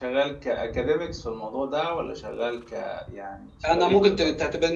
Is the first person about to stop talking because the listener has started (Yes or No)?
Yes